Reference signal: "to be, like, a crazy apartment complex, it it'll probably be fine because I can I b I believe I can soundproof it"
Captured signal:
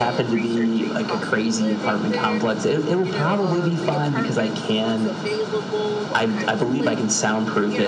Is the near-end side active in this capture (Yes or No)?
Yes